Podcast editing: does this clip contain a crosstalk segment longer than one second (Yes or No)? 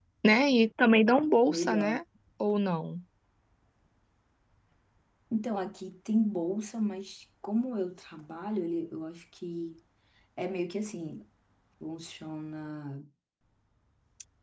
No